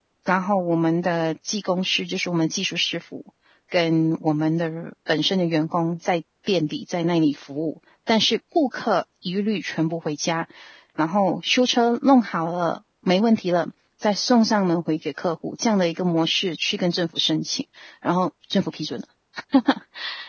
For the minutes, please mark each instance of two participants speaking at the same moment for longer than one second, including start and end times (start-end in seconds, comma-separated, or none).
none